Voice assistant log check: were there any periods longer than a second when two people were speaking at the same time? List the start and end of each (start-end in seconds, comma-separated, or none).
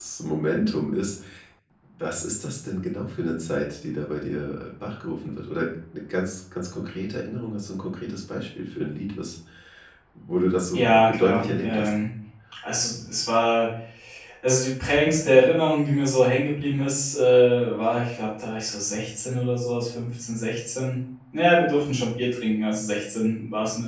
10.7-12.0